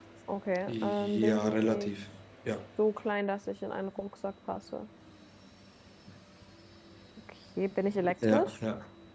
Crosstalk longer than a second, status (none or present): present